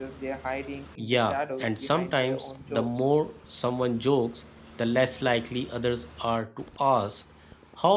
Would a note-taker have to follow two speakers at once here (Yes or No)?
Yes